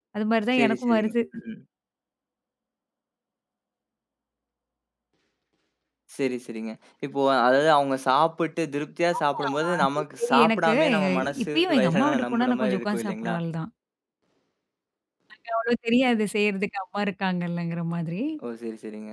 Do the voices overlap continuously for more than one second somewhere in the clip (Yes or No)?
Yes